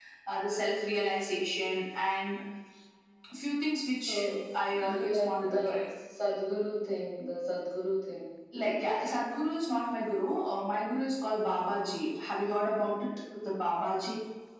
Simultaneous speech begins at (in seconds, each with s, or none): 4.0 s